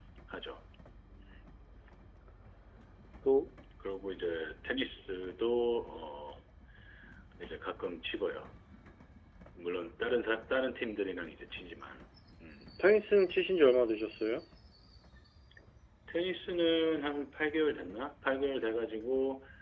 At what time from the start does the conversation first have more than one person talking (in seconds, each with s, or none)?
none